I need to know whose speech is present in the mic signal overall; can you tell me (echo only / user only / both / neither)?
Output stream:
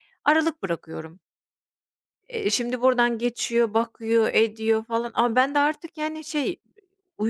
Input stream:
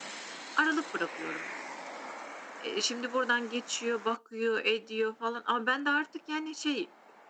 echo only